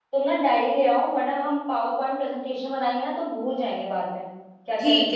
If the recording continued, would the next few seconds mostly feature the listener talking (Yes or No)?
Yes